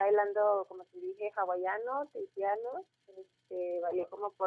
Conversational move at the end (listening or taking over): listening